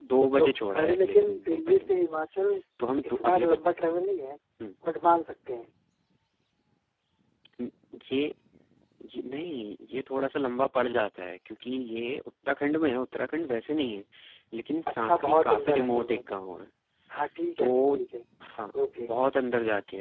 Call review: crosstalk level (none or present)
present